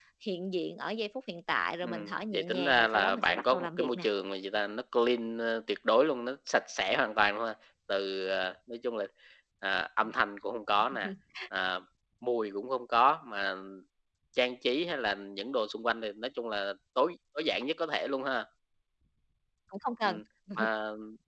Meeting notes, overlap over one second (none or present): present